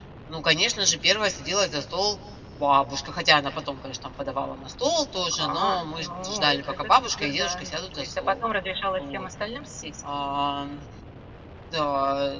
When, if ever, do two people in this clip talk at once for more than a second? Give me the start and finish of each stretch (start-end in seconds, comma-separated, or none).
5.4-8.3